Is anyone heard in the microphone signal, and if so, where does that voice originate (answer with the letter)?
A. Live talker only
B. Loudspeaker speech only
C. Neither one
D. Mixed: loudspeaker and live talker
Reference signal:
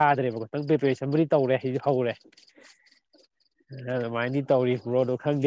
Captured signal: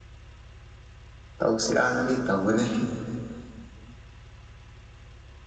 A